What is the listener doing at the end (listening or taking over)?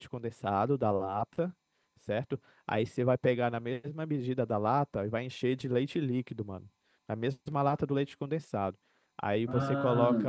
listening